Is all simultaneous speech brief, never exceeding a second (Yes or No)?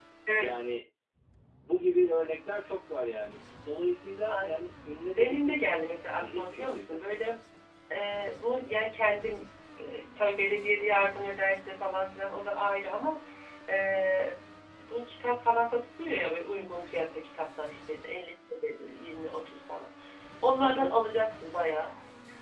No